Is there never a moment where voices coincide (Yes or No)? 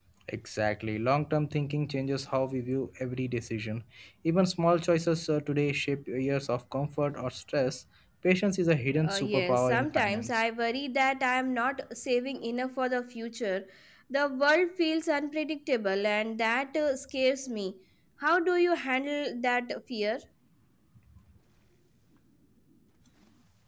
No